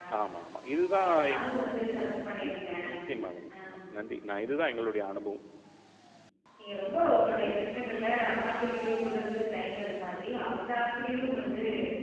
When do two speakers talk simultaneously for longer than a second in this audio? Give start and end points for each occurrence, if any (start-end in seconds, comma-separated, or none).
none